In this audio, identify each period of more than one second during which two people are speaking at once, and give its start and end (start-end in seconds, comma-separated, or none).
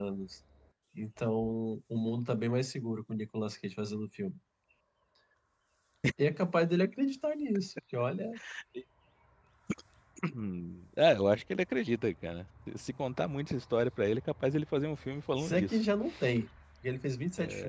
none